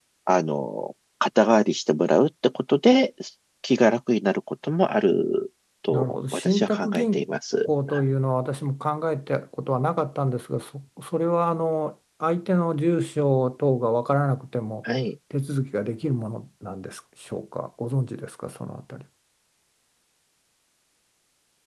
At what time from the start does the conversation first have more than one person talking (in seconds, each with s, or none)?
5.9 s